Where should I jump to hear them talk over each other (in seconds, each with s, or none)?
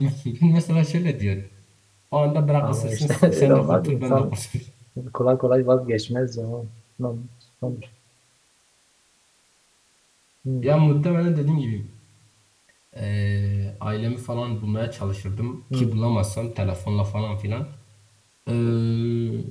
2.6 s